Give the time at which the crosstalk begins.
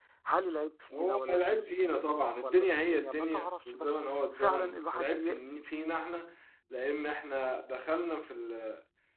0.9 s

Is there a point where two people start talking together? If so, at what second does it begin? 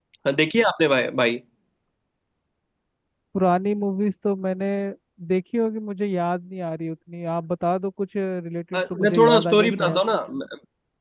8.7 s

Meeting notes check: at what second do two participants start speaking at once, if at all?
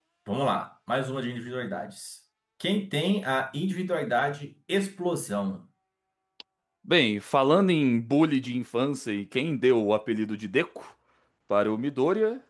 none

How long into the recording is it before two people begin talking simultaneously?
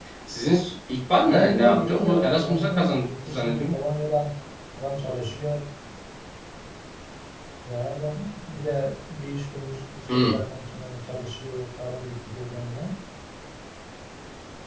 1.3 s

